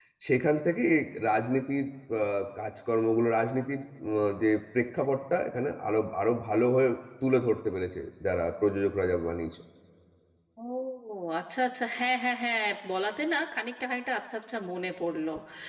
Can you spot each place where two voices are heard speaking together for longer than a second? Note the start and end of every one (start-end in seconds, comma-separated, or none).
none